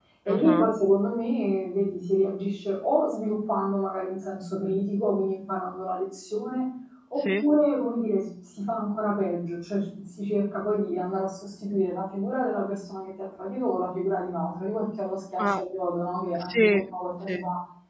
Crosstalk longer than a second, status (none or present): none